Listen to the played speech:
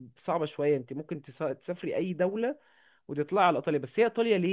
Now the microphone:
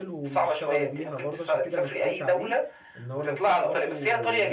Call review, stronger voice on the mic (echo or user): echo